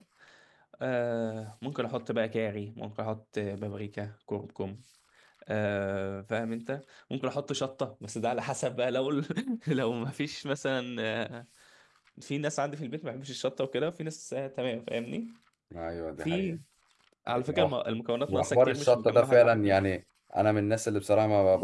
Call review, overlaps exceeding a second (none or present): present